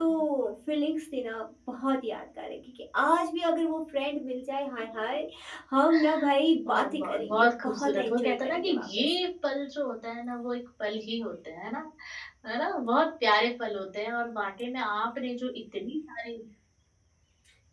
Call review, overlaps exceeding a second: present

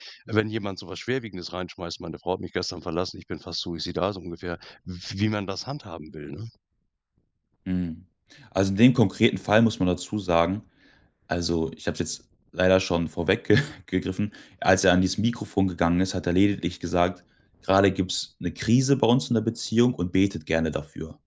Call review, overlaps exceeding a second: none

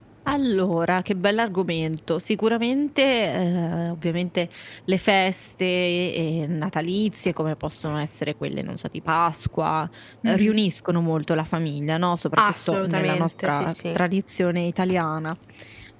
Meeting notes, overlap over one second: present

